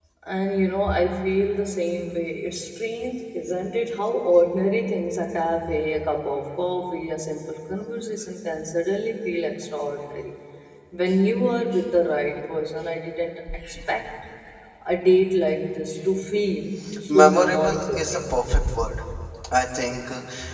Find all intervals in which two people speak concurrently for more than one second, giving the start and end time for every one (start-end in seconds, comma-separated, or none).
17.1-18.4